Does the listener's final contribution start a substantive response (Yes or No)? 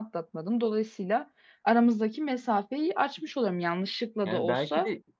Yes